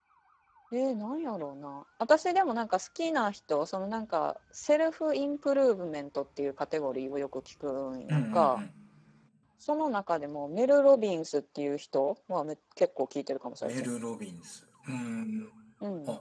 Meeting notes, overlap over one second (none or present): none